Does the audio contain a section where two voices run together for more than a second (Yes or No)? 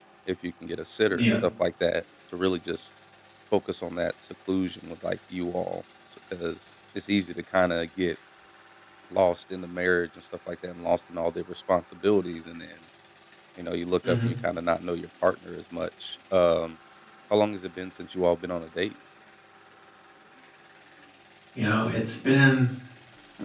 No